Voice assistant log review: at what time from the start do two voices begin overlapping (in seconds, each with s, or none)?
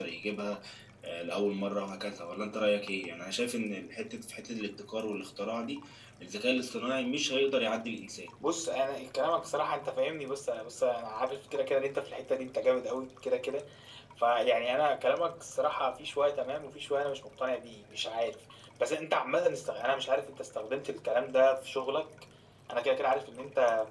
none